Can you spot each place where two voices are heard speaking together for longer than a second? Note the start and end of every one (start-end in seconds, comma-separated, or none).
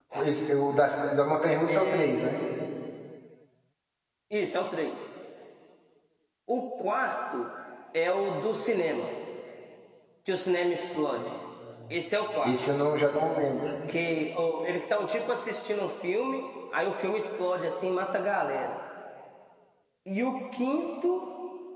none